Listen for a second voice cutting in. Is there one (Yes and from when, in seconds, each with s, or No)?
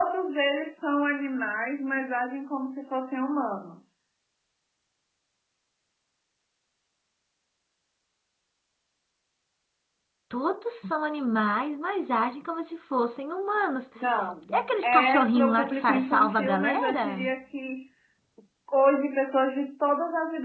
Yes, from 14.5 s